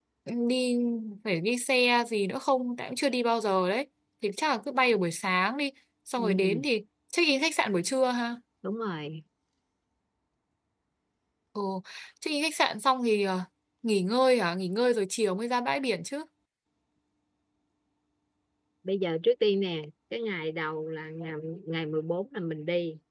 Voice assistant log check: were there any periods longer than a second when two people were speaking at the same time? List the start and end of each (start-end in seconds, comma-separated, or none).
none